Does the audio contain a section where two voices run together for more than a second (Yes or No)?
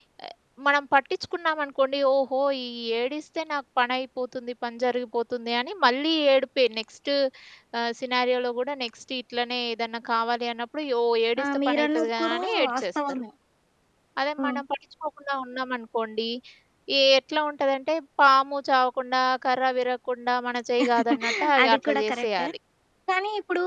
Yes